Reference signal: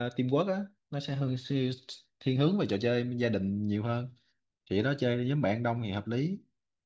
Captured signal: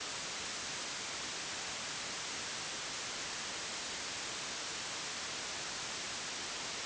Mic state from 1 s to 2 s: neither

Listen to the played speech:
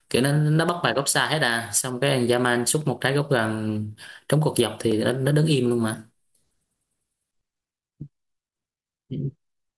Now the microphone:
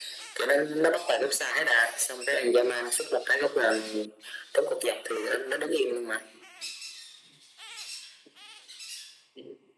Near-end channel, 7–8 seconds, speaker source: neither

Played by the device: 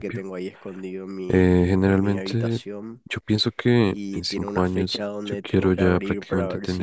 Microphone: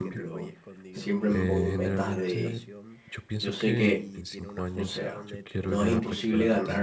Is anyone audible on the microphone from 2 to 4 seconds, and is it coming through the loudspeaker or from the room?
both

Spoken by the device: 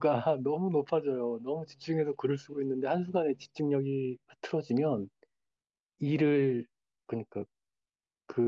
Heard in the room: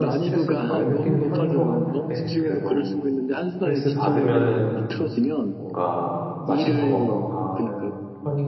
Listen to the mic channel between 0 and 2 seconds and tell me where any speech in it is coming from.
both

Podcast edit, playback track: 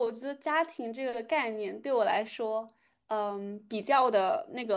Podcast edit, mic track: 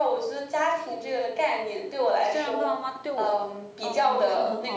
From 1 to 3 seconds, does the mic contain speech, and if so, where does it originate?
both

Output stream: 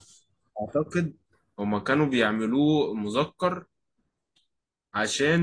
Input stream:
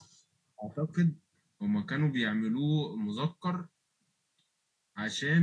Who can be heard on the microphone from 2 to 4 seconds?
echo only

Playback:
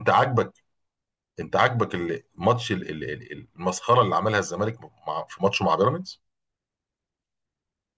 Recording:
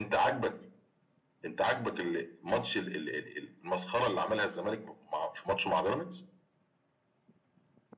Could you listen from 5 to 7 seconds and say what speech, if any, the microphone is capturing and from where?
echo only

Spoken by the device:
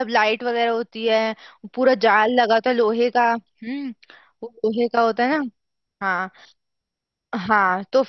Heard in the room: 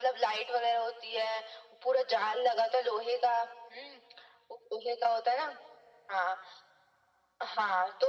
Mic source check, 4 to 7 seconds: echo only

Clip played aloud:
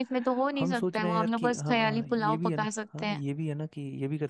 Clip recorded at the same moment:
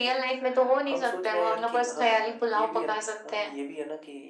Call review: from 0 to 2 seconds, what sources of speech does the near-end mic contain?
echo only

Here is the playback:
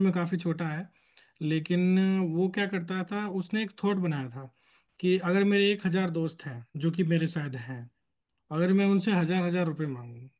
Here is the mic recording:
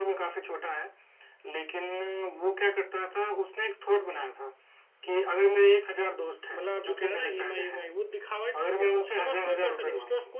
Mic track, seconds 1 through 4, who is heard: echo only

